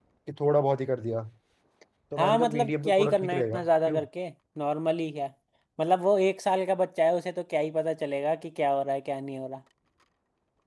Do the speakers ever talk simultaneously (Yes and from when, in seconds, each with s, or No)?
Yes, from 2.2 s